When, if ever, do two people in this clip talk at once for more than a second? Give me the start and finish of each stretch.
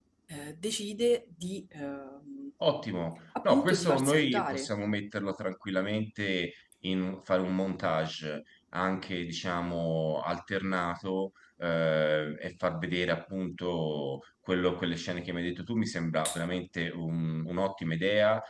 3.4-4.7

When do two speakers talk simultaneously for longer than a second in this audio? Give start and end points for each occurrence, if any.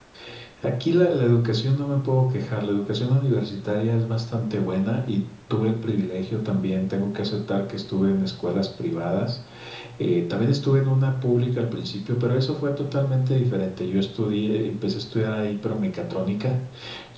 none

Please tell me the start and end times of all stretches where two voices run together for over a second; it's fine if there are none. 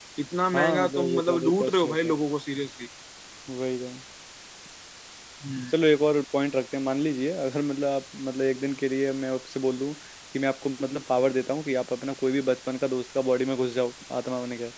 0.5-2.1

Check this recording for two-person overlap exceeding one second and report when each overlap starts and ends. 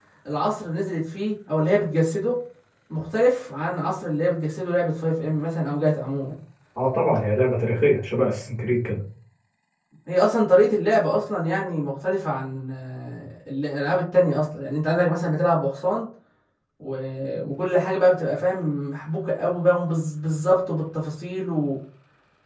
none

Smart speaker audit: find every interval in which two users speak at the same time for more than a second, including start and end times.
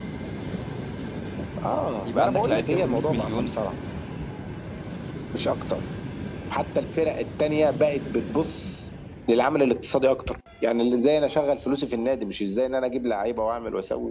2.0-3.5

